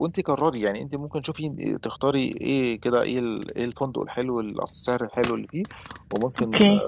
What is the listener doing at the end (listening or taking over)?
listening